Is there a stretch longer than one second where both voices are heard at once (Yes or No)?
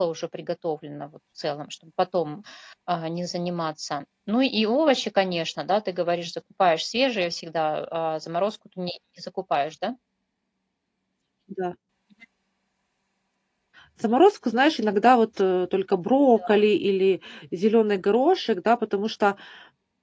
No